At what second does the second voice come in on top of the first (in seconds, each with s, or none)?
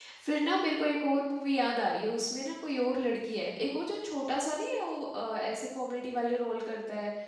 none